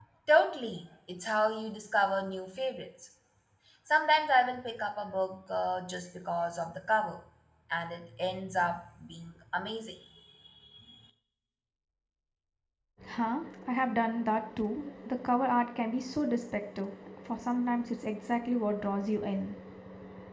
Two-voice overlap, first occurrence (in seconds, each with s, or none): none